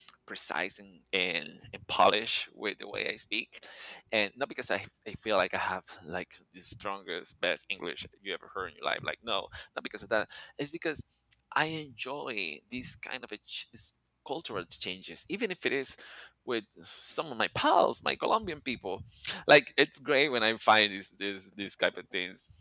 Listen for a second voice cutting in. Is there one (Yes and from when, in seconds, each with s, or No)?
No